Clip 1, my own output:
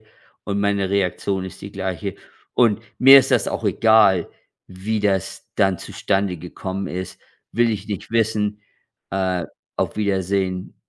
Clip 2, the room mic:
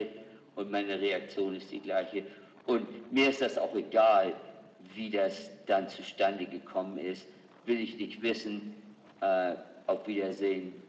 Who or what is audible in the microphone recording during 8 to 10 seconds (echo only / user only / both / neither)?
echo only